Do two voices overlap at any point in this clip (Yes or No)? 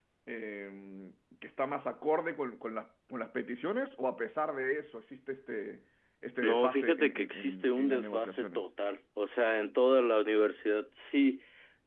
Yes